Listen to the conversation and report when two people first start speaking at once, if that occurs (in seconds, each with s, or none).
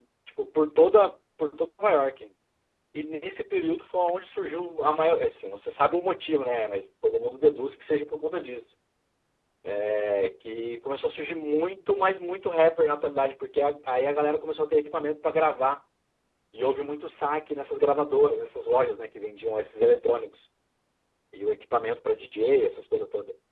none